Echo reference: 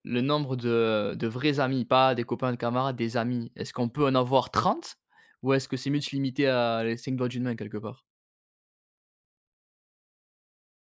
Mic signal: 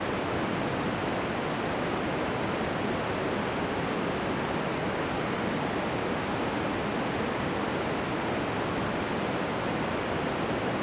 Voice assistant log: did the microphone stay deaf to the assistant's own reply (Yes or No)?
Yes